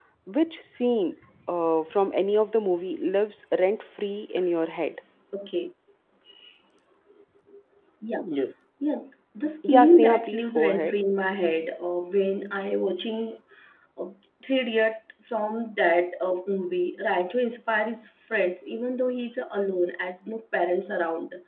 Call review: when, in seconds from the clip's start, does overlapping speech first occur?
9.7 s

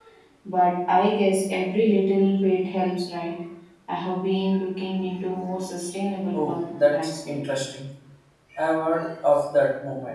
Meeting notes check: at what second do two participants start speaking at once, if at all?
6.3 s

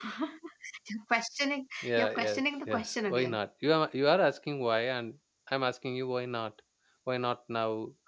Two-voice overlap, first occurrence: 1.8 s

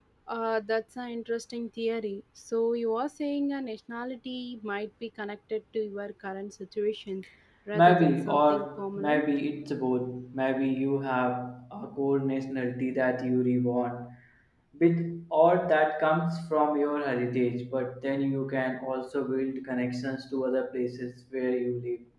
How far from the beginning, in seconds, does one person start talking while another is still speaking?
7.7 s

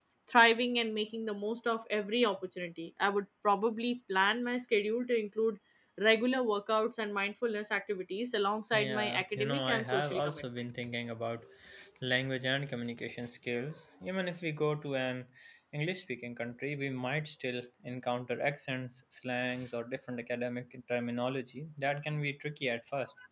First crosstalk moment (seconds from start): 8.7 s

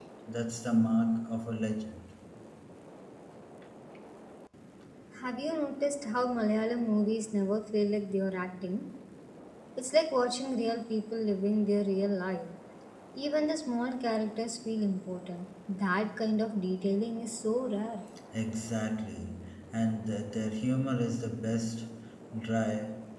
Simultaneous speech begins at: none

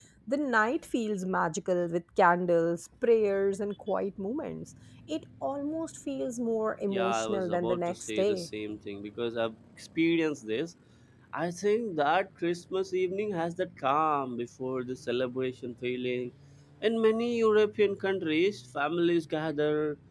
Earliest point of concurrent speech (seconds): 6.9 s

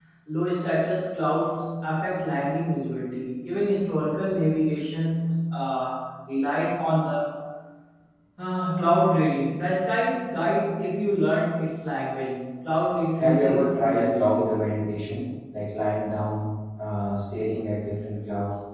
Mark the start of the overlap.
13.2 s

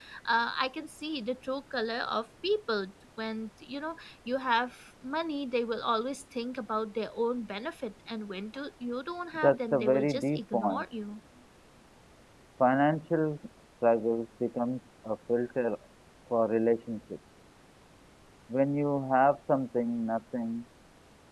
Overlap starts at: 9.3 s

